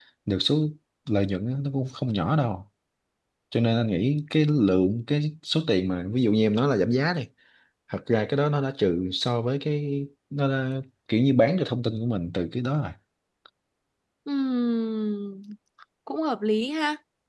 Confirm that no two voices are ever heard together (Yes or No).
Yes